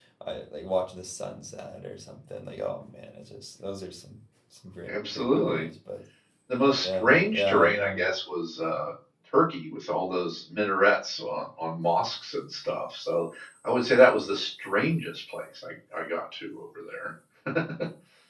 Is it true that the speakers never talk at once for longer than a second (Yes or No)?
No